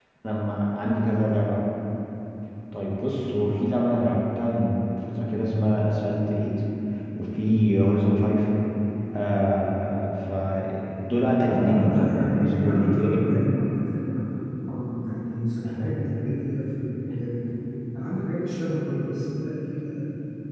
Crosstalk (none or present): present